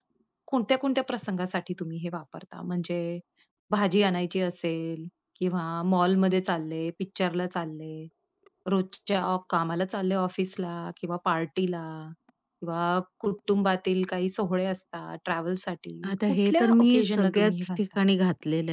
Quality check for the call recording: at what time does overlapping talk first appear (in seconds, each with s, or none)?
16.0 s